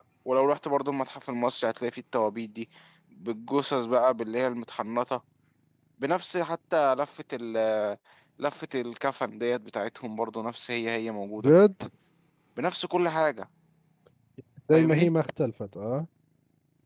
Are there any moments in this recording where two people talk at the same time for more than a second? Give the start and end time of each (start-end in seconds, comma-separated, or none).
none